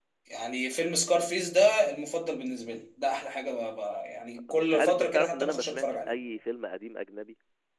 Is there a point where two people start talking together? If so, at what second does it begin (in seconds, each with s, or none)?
4.5 s